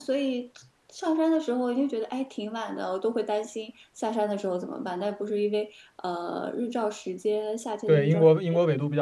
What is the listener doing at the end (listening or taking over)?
taking over